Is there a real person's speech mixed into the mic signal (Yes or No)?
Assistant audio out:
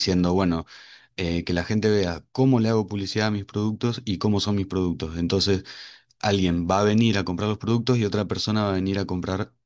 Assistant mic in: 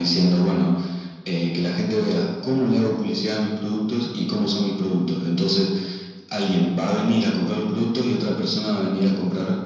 No